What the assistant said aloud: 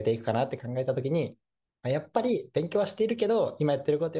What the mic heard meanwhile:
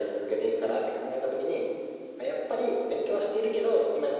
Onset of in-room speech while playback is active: none

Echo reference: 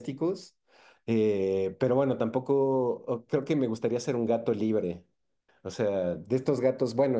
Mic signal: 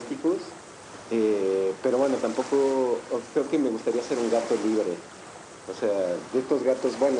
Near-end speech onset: none

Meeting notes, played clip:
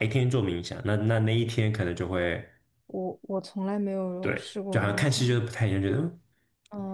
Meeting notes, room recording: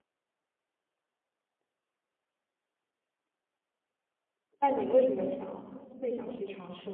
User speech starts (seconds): 5 s

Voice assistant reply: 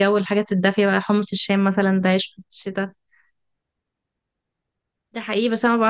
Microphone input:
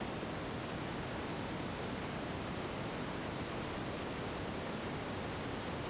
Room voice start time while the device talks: none

